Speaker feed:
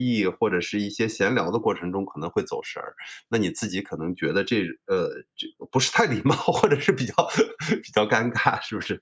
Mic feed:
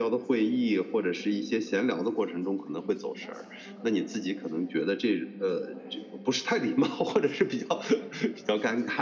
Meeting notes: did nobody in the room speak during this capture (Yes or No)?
No